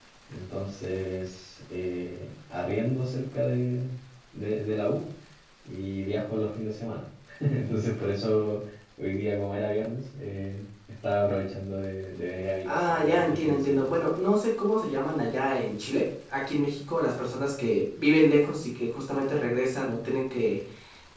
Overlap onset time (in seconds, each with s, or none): 12.7 s